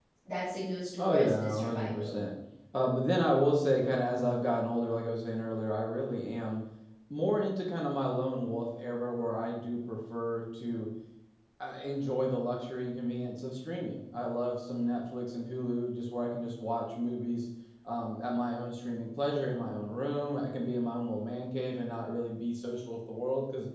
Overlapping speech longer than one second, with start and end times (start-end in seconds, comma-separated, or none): 1.0-2.2